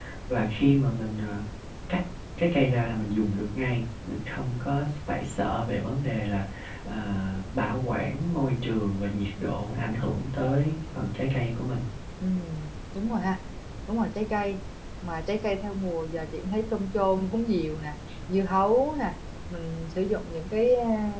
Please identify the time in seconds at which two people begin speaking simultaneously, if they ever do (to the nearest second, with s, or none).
none